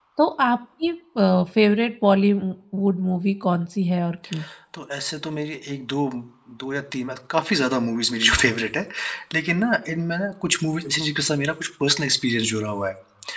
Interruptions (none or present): none